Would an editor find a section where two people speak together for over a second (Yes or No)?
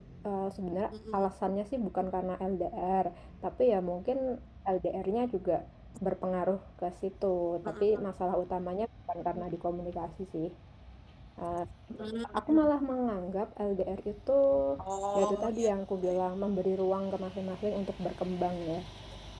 No